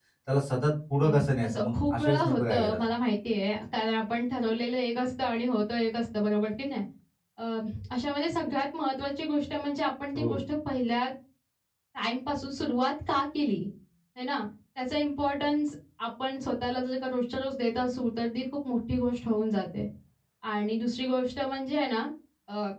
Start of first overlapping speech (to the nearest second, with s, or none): 1 s